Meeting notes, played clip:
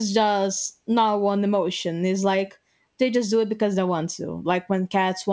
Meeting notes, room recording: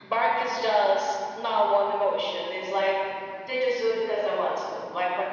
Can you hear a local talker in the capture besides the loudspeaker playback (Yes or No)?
No